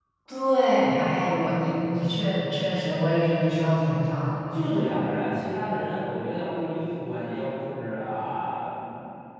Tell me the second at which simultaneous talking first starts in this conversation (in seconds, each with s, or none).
none